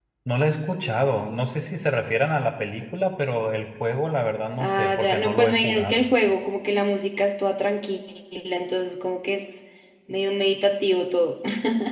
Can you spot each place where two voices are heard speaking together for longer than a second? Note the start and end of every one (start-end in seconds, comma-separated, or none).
4.6-6.1